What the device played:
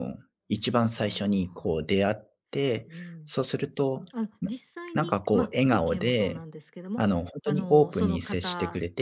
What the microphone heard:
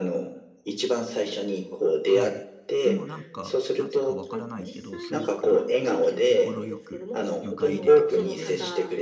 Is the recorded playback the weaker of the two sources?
No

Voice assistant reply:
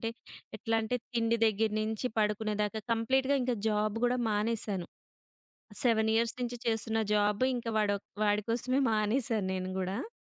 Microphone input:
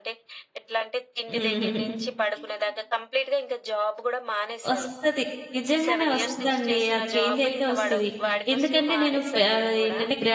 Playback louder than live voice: No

